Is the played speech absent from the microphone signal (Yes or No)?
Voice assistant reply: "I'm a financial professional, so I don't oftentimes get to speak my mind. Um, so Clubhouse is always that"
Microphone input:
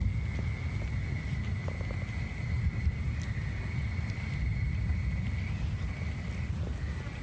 Yes